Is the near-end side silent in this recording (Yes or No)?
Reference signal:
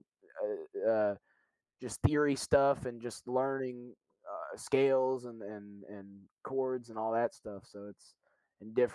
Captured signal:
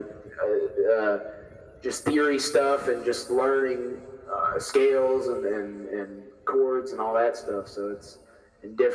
Yes